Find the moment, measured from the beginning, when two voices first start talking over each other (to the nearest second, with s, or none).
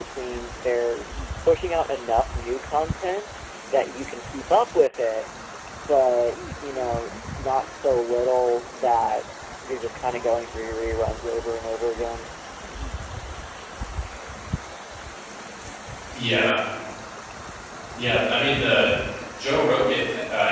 none